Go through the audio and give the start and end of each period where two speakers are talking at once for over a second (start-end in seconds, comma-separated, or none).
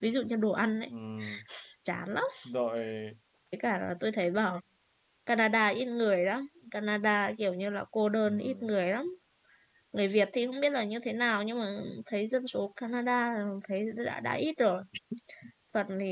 none